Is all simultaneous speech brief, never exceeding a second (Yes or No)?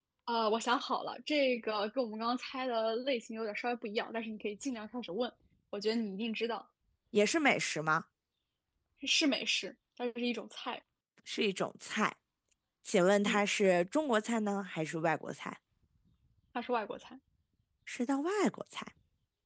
Yes